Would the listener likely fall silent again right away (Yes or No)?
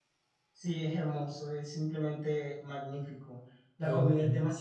Yes